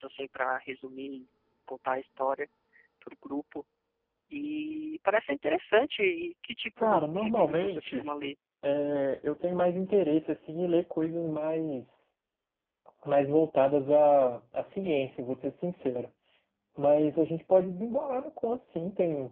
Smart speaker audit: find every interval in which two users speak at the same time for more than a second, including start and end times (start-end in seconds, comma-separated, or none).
6.8-8.0